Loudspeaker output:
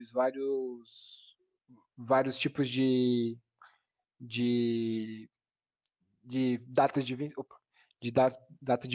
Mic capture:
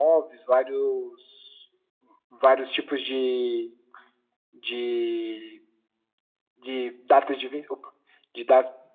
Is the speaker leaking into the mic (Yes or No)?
Yes